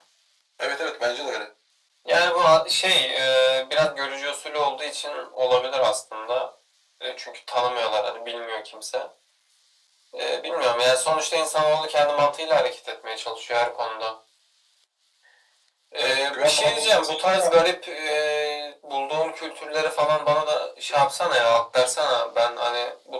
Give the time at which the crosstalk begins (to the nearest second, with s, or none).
16 s